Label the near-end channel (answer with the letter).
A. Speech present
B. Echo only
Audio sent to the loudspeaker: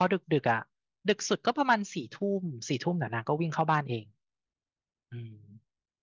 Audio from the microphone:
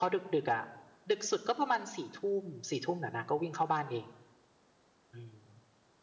B